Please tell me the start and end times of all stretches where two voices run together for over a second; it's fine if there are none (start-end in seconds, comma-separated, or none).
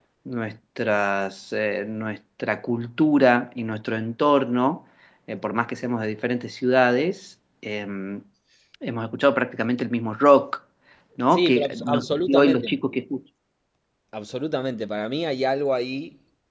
11.3-12.7